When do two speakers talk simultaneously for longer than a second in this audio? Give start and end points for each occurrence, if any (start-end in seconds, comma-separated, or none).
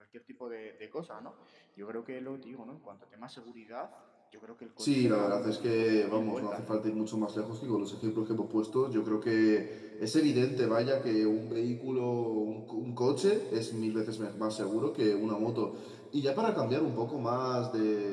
4.8-6.8